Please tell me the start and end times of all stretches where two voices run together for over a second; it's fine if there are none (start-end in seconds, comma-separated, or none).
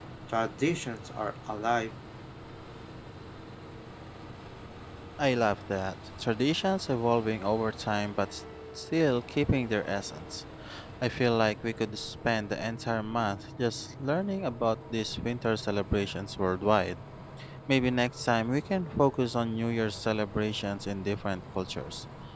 none